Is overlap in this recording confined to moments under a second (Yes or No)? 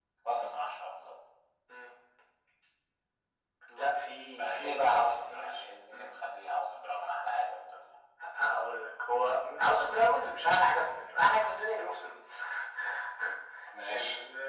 No